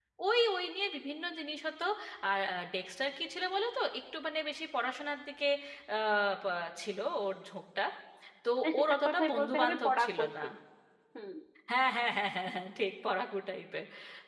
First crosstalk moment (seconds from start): 8.6 s

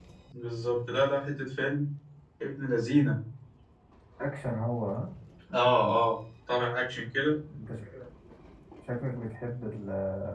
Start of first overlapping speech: none

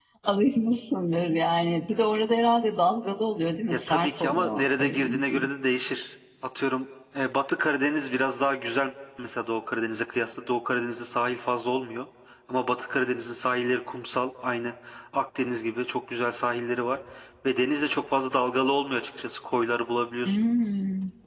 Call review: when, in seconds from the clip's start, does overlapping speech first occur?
3.7 s

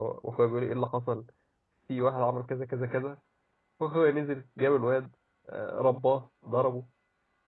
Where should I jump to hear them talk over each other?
none

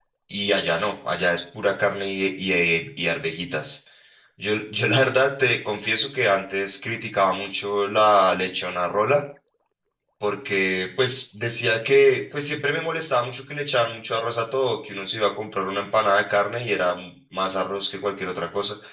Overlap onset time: none

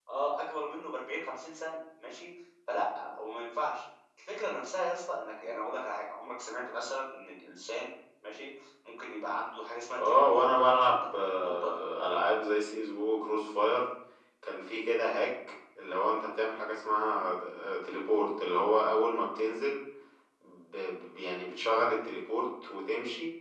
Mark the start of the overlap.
10.0 s

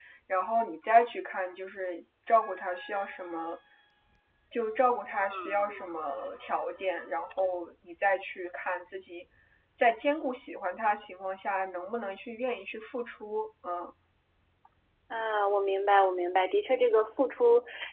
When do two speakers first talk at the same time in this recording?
none

